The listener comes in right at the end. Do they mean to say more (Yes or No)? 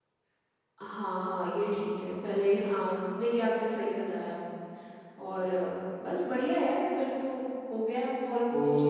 Yes